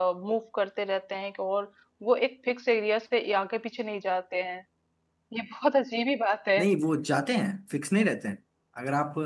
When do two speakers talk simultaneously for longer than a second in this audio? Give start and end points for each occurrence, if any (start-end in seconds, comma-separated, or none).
none